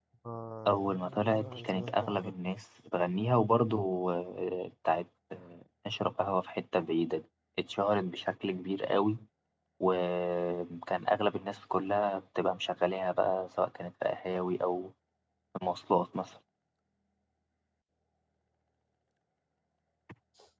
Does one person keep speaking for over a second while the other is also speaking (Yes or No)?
Yes